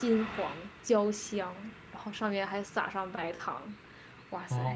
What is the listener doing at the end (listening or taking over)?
taking over